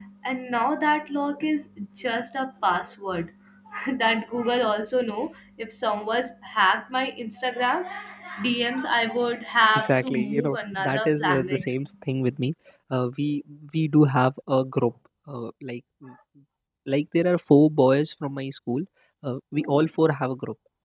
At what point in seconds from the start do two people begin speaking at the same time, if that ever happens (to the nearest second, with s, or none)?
10 s